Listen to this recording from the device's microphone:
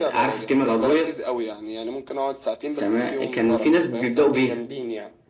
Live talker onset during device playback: none

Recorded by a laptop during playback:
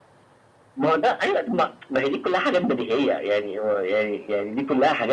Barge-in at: none

